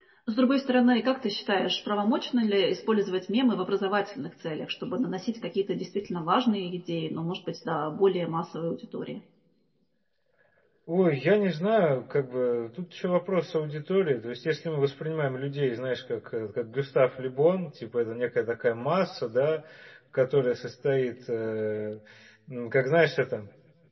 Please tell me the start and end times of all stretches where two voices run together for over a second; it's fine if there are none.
none

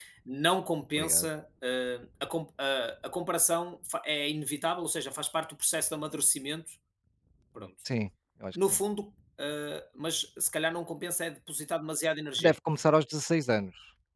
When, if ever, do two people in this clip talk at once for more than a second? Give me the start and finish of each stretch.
none

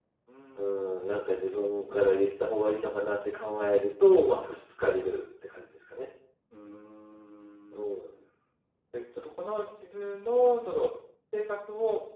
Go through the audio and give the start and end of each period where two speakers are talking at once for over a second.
0.6-2.1

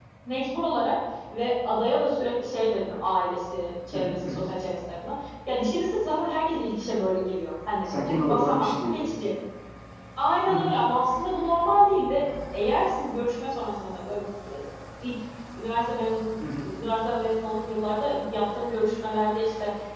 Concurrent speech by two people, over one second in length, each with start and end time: 7.8-9.1

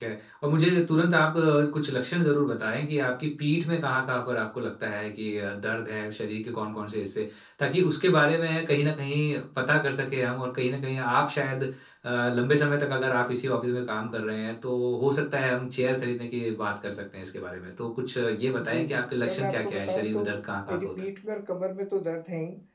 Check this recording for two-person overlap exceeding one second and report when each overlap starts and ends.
18.6-20.2

